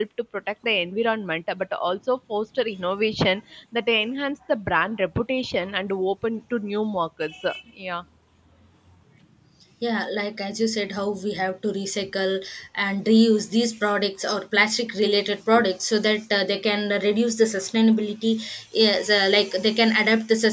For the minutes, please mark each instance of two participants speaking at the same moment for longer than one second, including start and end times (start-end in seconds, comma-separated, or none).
none